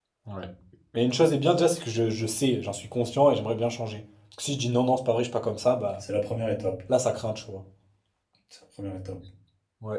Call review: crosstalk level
none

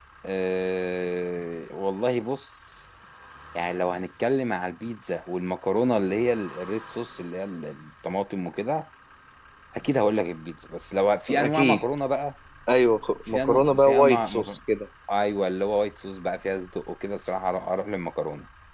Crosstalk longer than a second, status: present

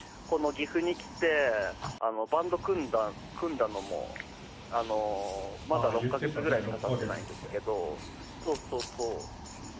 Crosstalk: present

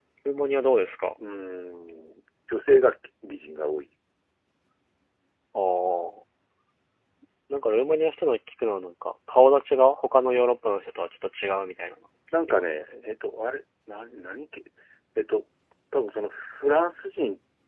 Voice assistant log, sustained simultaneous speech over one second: none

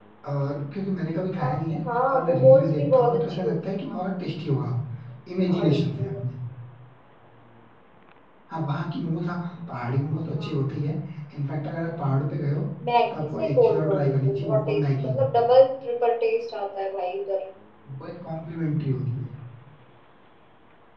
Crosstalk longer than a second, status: present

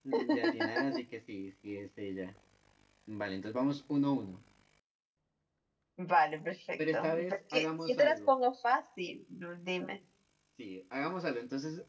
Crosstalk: present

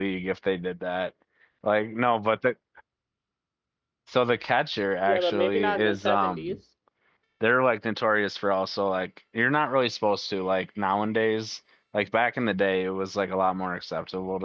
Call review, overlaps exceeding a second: present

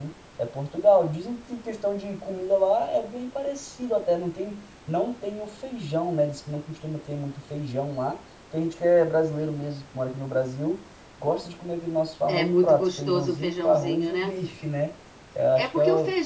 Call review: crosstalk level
present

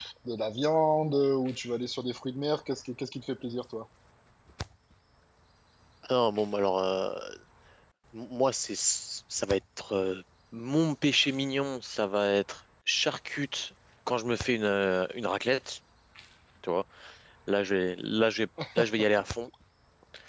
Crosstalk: none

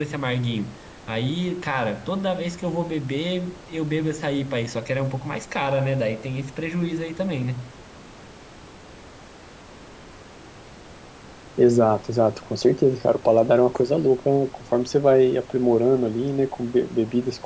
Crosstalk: none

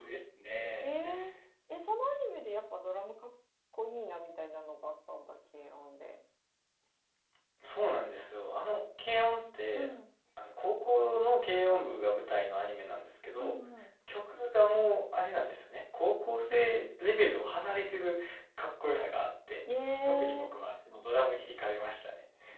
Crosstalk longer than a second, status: none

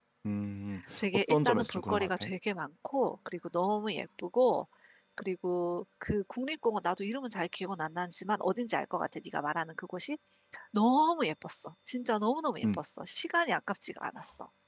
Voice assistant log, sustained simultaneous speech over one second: present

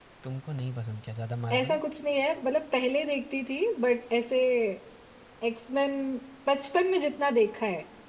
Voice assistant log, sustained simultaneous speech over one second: none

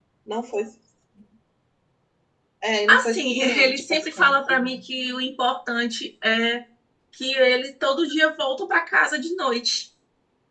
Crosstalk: present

